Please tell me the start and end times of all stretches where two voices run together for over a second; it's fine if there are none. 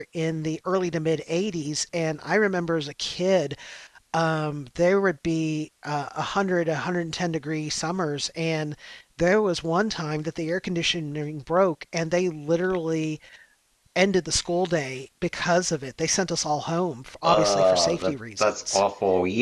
17.2-18.8

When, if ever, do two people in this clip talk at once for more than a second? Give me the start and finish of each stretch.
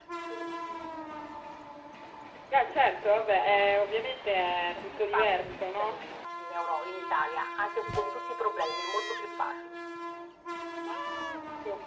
4.7-6.0

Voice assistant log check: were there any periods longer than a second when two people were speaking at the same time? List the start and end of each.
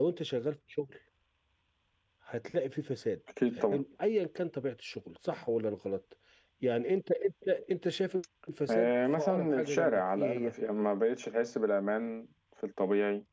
8.7-10.5

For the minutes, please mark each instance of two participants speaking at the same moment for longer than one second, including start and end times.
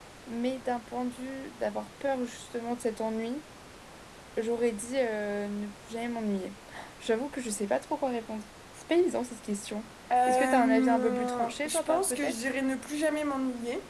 10.3-12.5

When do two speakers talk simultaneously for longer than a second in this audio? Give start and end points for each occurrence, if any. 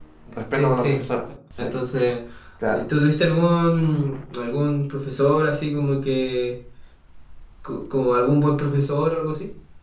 none

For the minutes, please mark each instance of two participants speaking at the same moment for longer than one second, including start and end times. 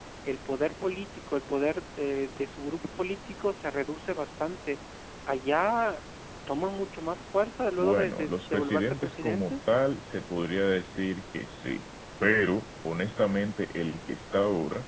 7.8-9.5

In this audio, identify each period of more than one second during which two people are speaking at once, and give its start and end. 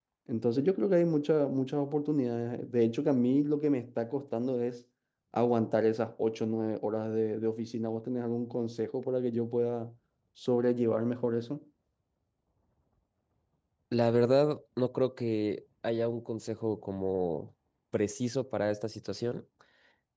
none

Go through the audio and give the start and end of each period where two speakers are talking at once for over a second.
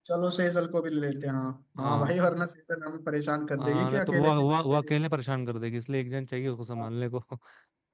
3.6-4.9

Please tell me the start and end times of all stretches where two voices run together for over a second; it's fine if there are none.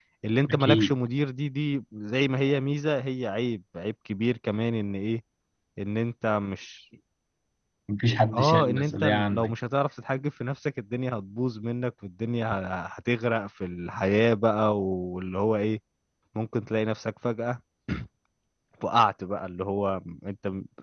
8.3-9.5

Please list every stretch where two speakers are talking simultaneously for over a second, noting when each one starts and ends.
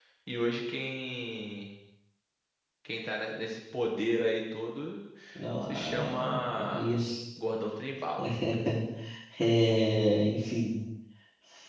5.7-6.9

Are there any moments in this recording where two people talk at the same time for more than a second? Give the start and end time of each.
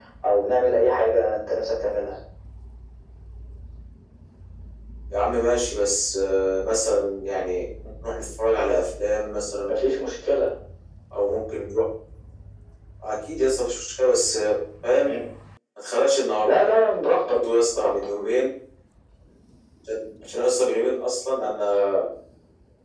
none

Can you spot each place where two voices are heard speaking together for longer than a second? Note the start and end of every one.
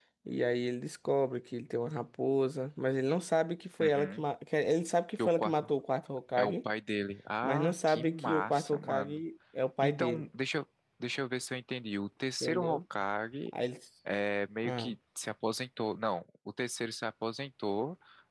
7.4-9.2

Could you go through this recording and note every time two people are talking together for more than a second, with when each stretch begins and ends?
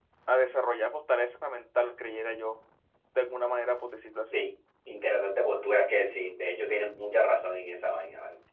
none

